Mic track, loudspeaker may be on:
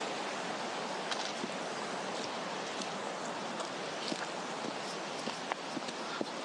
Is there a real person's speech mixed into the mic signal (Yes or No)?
No